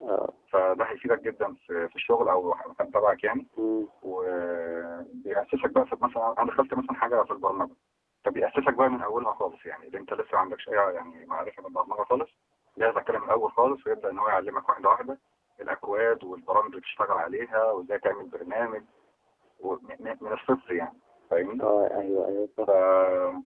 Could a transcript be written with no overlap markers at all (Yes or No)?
Yes